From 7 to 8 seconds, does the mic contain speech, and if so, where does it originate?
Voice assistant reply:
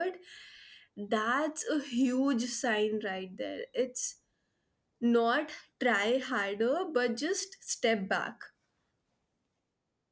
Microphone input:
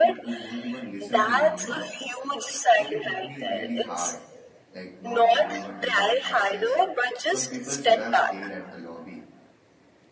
both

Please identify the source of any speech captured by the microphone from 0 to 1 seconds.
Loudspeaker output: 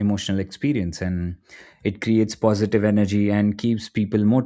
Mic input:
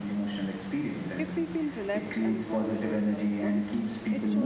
echo only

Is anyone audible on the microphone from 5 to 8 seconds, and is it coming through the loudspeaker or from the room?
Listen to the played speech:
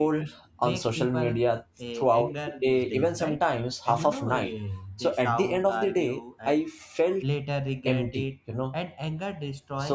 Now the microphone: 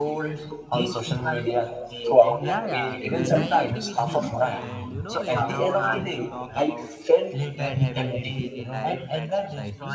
both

